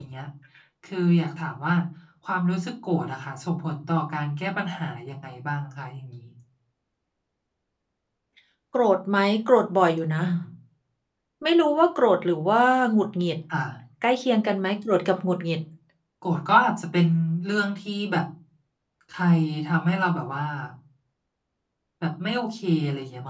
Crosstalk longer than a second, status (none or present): none